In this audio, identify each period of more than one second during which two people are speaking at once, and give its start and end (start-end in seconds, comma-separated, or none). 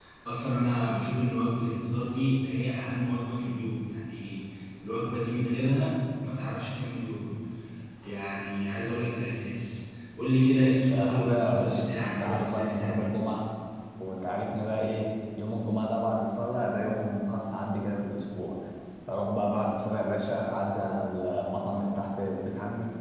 10.9-13.1